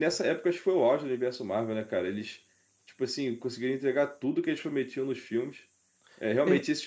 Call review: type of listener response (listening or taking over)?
listening